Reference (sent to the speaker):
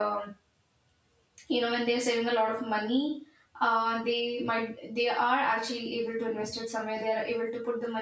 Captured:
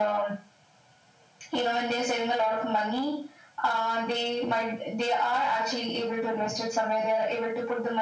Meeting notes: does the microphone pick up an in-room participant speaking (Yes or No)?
No